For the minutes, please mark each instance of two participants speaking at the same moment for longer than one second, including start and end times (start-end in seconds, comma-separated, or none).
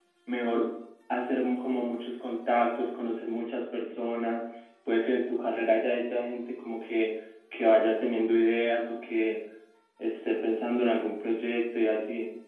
none